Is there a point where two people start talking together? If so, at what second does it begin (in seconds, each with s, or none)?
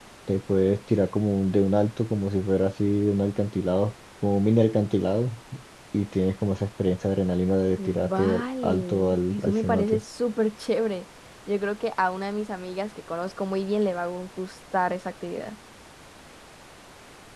7.8 s